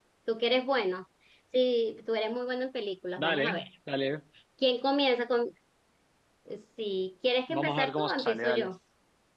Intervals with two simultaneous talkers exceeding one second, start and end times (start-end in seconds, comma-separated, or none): 7.5-8.7